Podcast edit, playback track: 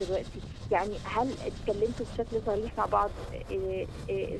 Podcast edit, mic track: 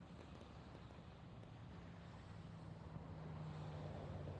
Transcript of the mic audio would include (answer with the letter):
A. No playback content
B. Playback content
A